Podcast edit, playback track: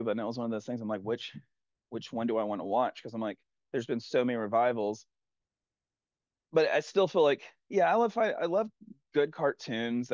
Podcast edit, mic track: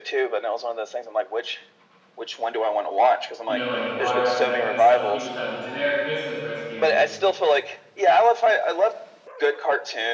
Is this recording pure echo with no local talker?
No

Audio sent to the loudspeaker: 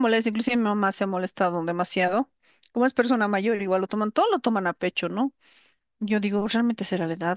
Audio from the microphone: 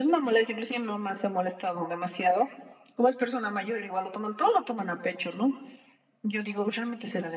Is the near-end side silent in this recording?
Yes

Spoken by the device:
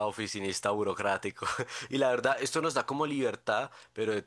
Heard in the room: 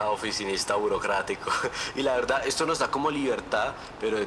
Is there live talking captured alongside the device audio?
No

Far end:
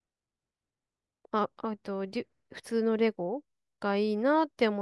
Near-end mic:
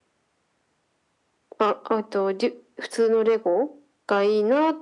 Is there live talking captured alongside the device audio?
No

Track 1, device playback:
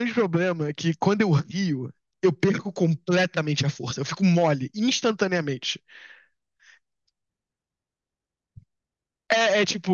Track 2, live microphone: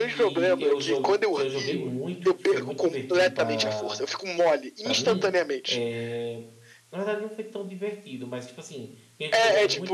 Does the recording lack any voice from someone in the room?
No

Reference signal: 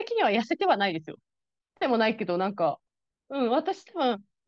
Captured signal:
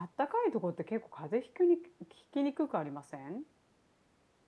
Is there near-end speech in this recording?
Yes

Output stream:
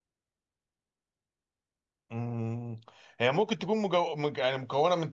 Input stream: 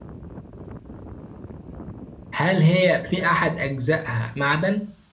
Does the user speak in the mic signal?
Yes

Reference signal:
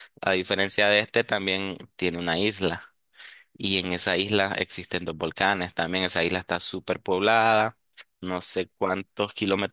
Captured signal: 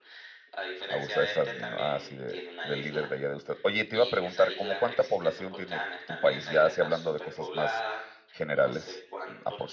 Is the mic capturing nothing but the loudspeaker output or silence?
No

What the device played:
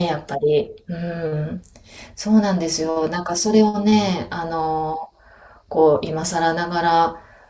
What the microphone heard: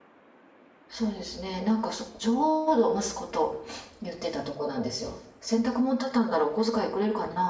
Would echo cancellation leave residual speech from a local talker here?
Yes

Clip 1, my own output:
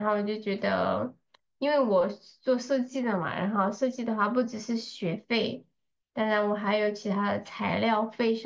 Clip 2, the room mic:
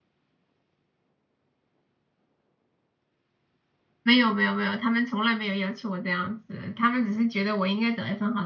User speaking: Yes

